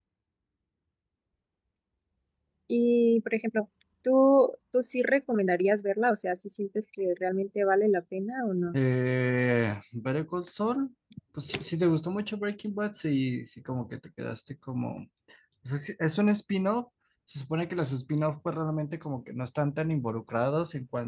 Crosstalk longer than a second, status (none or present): none